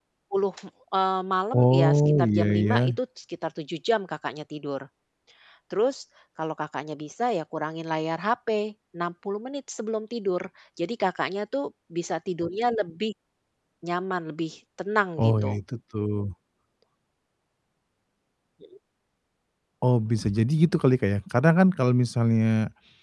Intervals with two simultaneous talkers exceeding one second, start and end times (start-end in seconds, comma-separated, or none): 1.5-3.0